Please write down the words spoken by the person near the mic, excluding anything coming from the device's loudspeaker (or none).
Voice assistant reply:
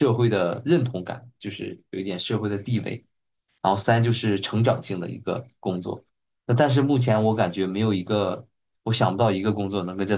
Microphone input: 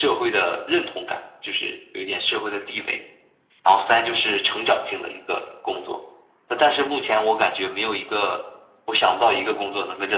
none